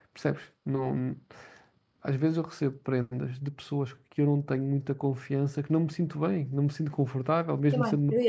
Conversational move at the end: taking over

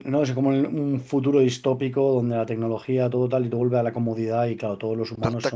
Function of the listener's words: taking over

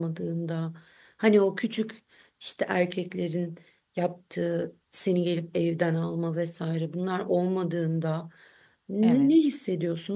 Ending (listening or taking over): listening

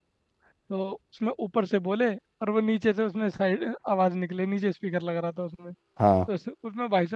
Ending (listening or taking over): listening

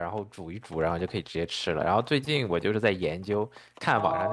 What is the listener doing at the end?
taking over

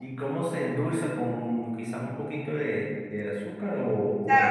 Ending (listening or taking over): taking over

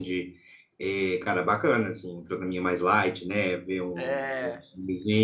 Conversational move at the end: listening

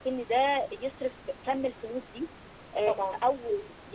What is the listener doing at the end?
listening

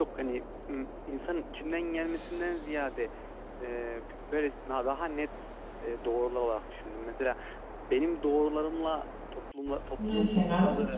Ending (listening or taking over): listening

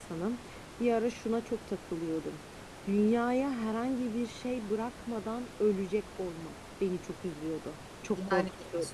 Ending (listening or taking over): taking over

